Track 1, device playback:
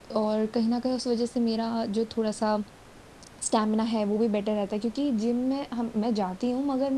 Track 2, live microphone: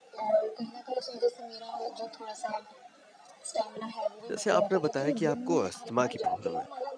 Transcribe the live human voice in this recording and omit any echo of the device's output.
जैसे आपने बताया कि आपको अस्थमा की प्रॉब्लम है,

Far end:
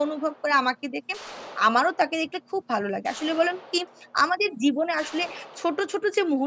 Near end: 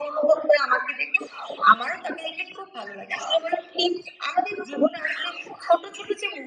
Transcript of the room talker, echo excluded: none

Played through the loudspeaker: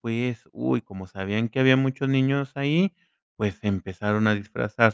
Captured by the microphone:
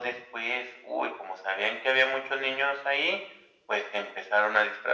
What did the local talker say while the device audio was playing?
none

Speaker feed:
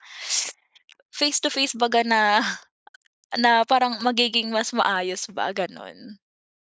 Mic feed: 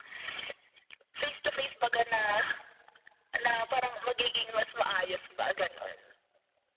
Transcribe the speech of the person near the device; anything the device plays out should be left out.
none

